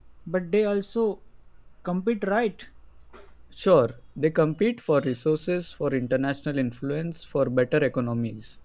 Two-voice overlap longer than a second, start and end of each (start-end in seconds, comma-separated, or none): none